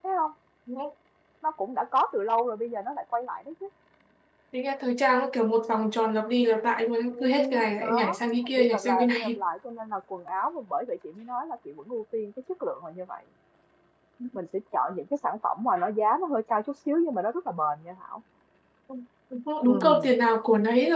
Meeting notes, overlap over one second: present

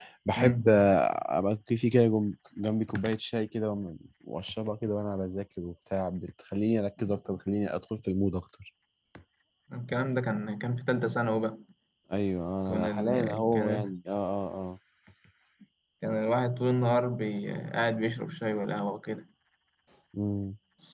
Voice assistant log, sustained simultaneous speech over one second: present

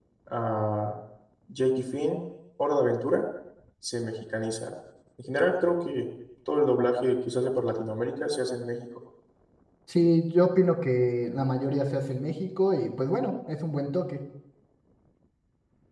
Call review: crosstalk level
none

